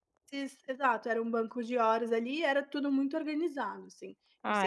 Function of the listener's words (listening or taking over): taking over